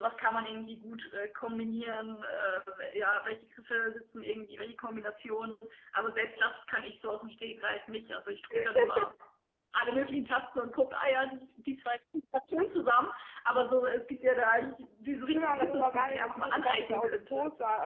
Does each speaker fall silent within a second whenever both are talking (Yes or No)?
No